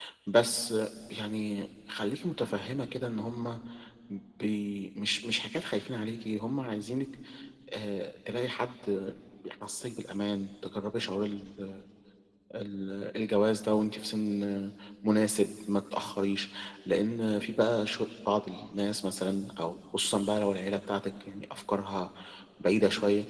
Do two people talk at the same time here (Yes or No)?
No